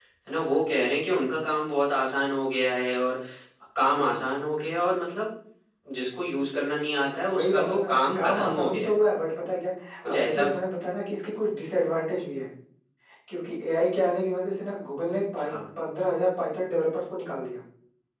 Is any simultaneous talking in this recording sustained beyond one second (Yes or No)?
Yes